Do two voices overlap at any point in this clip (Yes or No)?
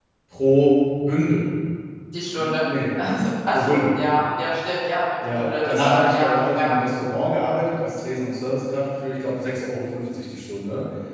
Yes